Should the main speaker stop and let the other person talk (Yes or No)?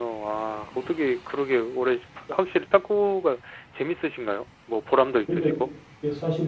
Yes